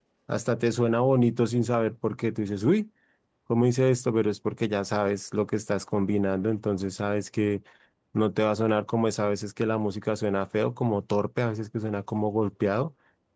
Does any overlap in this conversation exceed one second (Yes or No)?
No